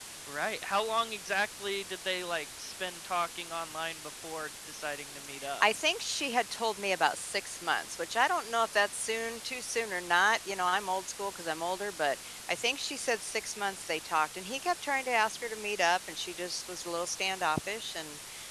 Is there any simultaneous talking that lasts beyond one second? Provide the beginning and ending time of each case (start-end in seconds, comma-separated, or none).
none